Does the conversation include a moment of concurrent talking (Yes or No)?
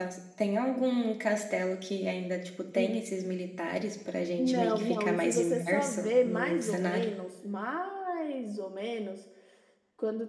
Yes